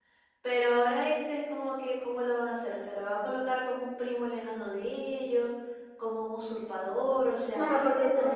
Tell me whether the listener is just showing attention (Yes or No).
No